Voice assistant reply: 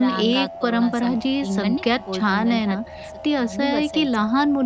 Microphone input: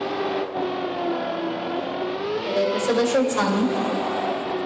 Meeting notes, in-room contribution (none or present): present